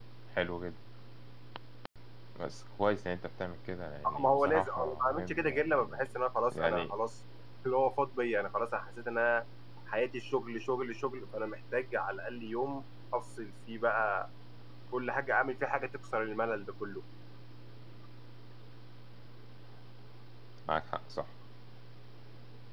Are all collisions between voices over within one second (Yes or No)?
No